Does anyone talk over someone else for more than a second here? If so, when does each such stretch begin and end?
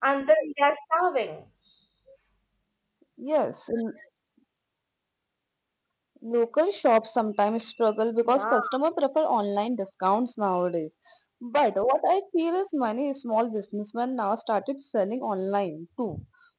none

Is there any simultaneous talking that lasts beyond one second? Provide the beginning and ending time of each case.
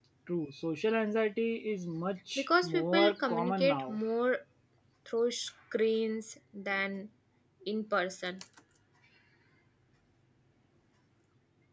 2.4-4.0

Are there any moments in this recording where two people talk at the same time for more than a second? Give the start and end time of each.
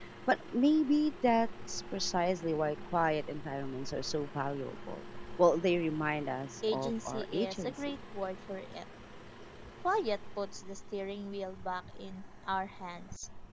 6.7-7.9

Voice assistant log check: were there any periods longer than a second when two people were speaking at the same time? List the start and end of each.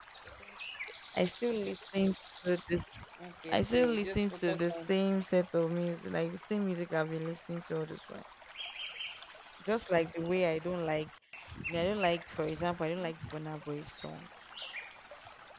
3.5-4.9

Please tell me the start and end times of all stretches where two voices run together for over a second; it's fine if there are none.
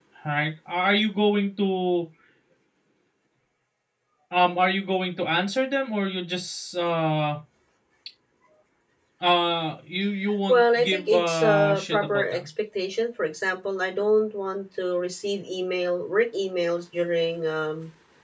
10.5-12.4

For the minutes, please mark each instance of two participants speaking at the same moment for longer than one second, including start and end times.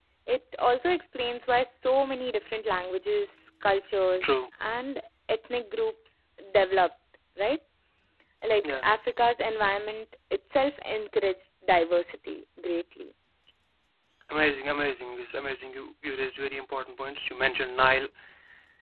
none

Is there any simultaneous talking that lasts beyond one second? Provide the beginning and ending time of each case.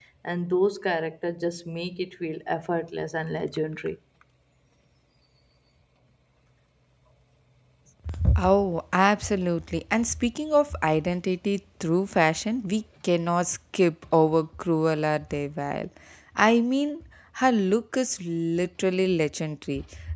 none

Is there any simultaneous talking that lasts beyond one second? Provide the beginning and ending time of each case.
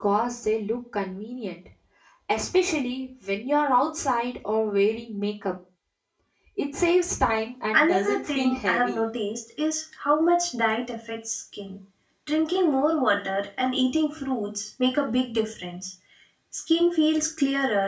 7.8-9.0

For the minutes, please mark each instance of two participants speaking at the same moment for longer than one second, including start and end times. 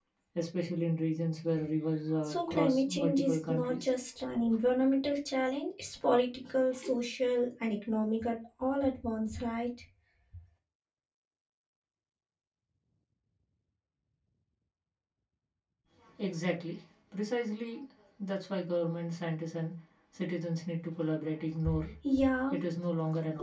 2.2-3.9

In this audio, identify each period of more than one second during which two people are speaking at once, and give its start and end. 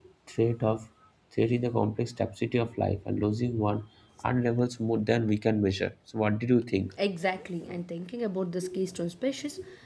none

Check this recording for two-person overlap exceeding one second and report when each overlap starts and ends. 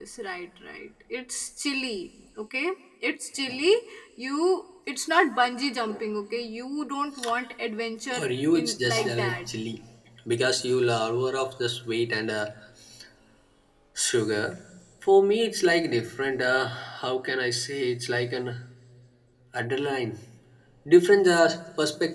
8.1-9.5

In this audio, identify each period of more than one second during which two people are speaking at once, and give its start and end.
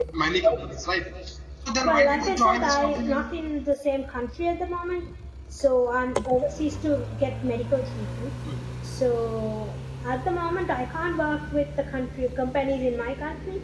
1.9-3.2

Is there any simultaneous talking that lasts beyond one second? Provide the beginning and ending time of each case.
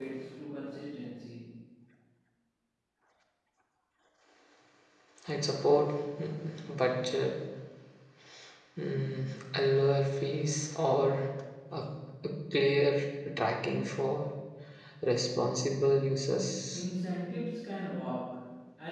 none

